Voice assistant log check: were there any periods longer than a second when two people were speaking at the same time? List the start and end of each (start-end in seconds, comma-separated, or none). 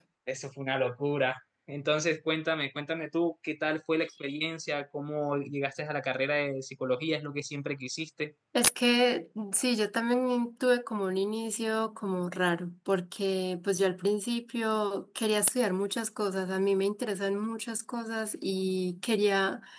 none